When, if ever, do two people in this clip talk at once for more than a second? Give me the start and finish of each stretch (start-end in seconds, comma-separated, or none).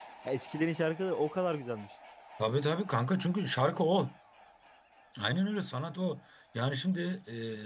none